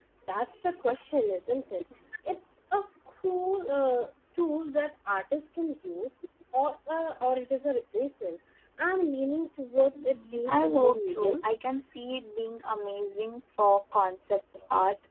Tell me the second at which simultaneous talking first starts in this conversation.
10.0 s

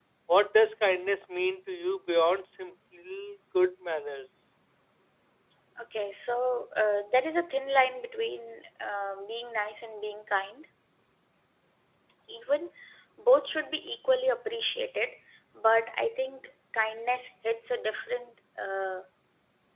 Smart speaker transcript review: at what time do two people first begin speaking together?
none

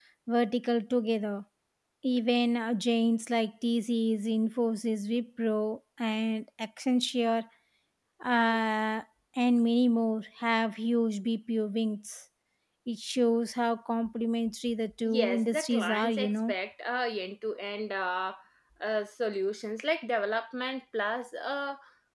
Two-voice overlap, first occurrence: 15.0 s

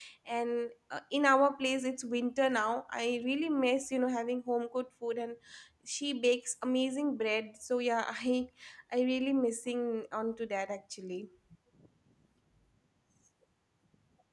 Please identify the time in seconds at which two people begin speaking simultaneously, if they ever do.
none

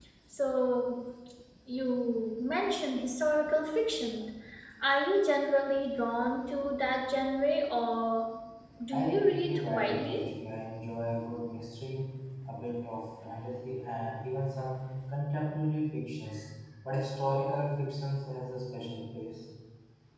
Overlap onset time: 8.9 s

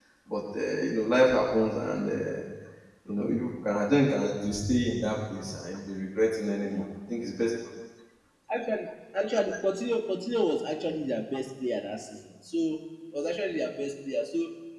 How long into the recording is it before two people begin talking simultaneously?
none

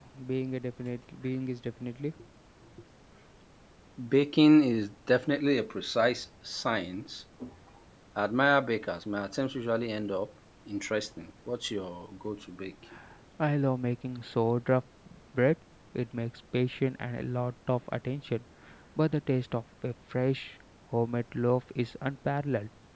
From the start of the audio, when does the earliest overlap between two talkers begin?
none

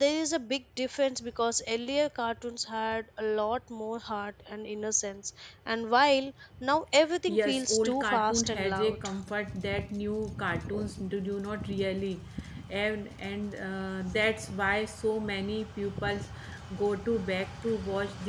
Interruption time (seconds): 7.3 s

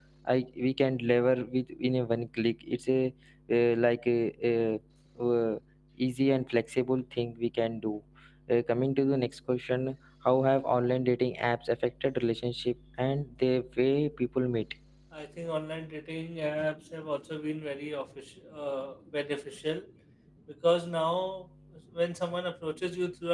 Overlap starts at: none

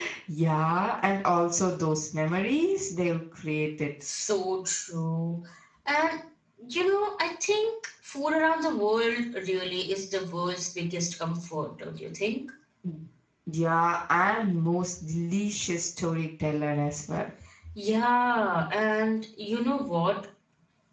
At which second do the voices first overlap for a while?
none

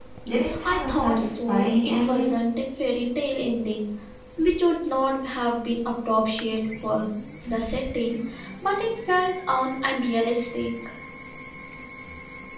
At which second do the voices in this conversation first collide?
0.7 s

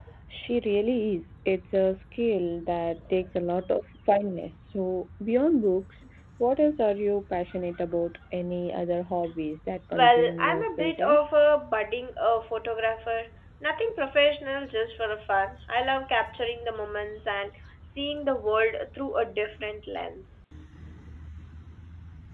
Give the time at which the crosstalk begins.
9.9 s

